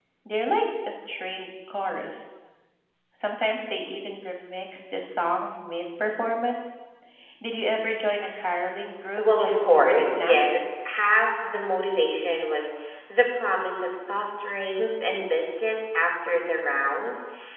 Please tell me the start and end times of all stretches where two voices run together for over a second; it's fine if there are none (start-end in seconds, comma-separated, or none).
9.2-10.6